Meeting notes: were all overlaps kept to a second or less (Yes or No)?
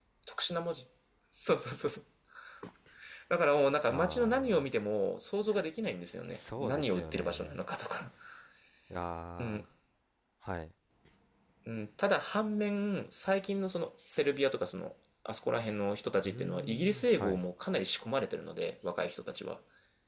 No